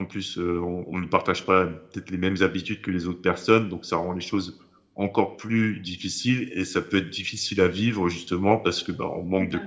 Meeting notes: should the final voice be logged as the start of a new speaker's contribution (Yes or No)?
No